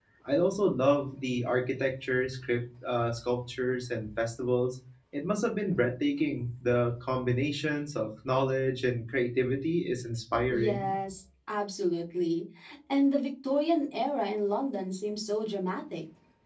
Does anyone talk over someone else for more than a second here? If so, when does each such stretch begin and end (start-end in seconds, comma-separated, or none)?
none